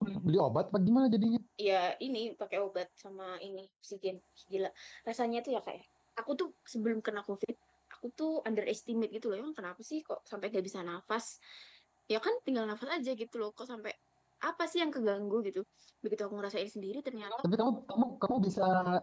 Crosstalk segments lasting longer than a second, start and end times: none

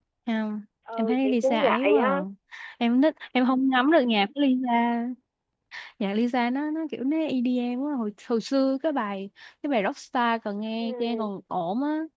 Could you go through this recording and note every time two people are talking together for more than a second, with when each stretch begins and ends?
1.0-2.2

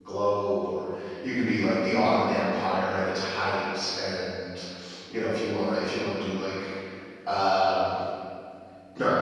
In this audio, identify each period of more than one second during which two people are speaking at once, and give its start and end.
none

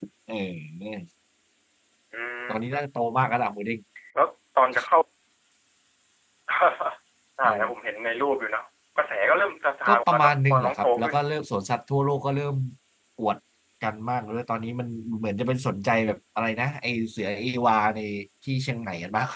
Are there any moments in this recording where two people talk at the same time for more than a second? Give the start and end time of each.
9.9-11.2

